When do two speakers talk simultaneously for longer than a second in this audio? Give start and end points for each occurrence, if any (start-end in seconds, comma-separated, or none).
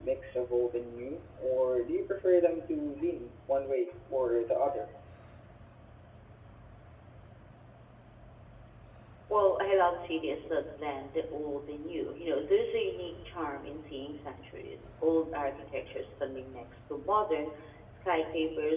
none